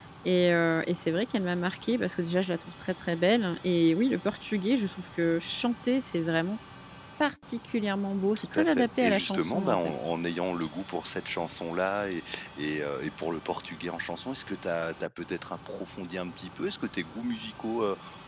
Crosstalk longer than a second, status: present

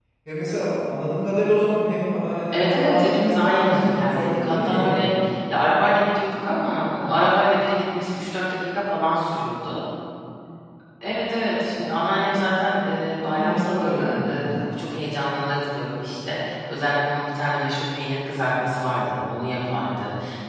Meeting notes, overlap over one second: present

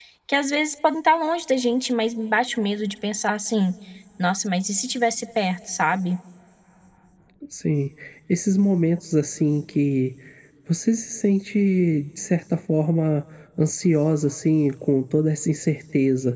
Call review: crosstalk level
none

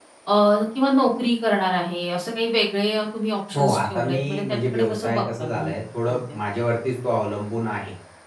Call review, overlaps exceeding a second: present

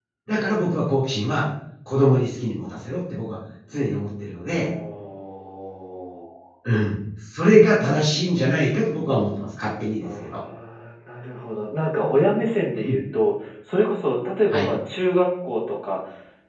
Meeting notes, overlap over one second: none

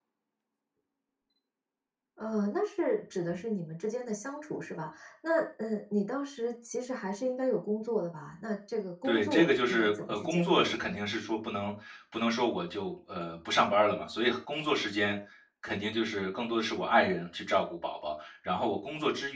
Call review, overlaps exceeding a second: present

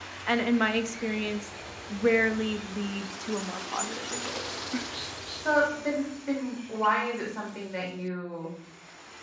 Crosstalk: none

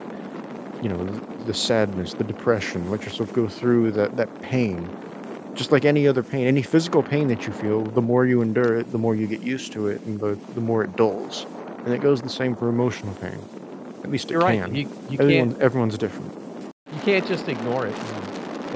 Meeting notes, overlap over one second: none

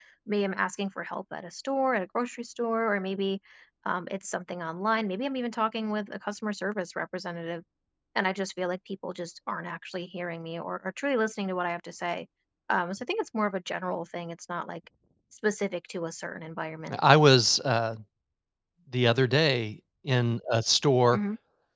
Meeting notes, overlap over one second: none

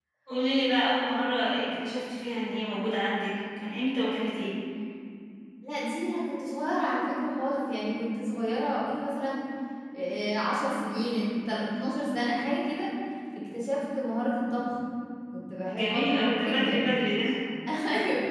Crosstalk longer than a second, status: present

